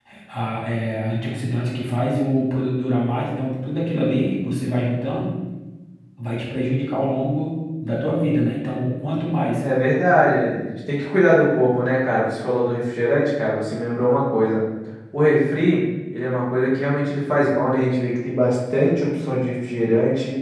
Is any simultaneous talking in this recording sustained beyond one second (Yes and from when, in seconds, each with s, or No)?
No